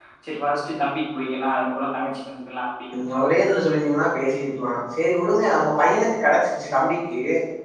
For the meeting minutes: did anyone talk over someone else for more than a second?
No

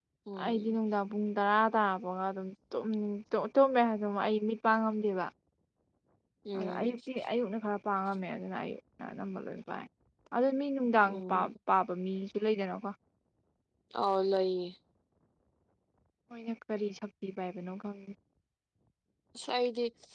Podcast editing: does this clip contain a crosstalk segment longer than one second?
No

